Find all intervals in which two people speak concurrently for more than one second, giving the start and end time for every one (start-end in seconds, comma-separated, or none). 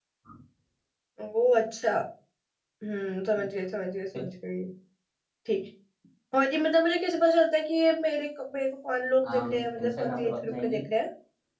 9.2-10.8